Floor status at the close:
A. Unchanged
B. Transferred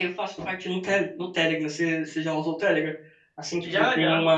A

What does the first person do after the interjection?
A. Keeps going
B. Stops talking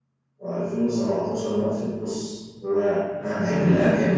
A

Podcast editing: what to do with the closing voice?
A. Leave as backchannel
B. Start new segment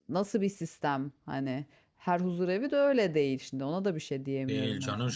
B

